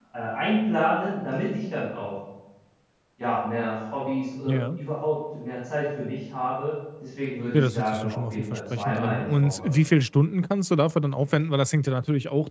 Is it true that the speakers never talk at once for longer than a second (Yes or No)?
No